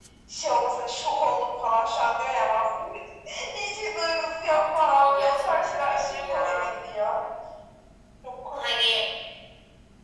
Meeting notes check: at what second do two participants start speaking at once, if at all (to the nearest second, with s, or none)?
4 s